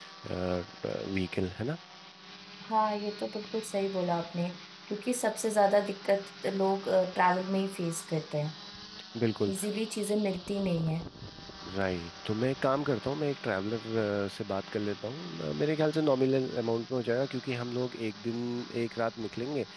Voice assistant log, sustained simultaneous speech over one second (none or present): none